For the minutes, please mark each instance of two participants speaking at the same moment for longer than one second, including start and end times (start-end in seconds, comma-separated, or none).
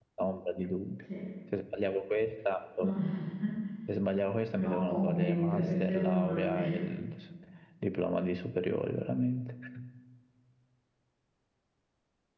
4.6-6.6